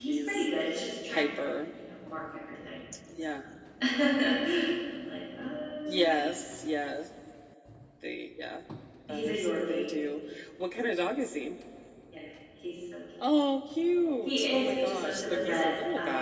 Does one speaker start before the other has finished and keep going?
Yes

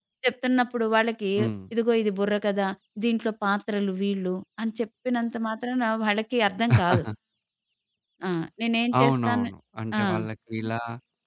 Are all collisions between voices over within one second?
Yes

